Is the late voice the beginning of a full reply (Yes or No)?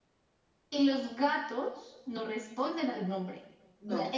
No